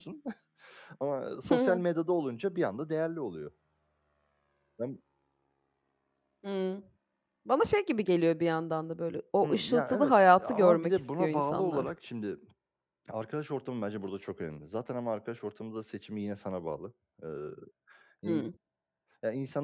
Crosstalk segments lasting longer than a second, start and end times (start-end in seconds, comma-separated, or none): 9.4-11.9